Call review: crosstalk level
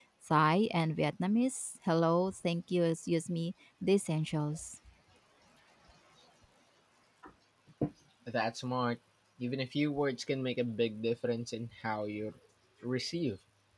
none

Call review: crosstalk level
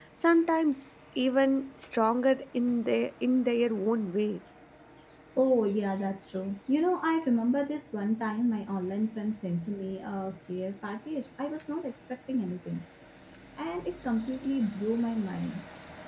none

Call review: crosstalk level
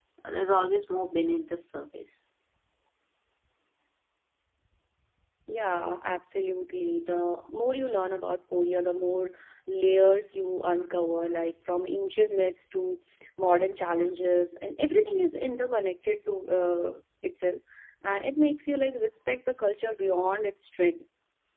none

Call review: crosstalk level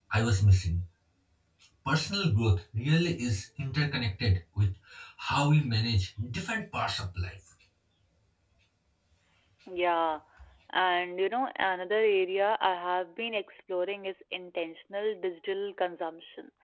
none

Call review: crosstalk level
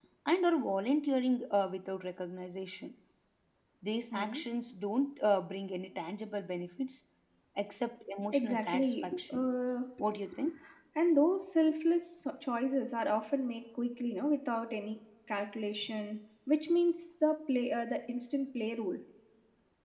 present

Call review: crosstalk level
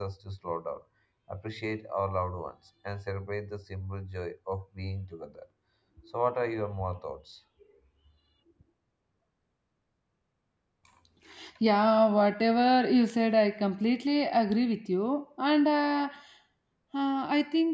none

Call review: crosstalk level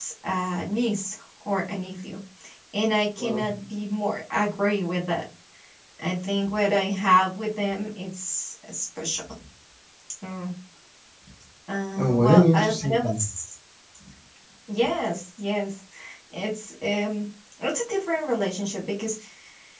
present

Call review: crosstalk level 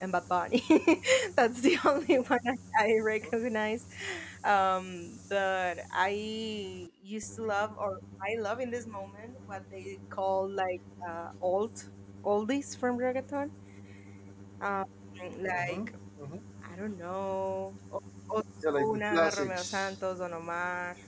present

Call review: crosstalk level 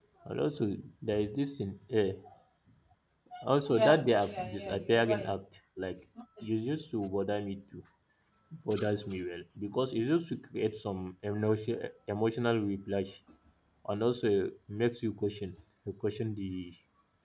present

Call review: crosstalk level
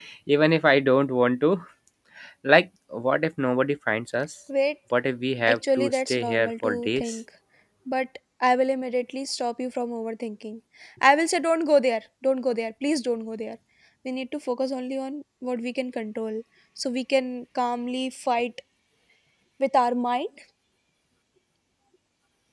present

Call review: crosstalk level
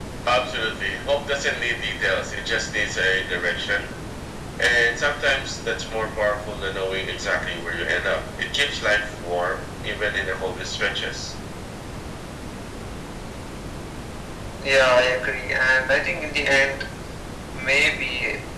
none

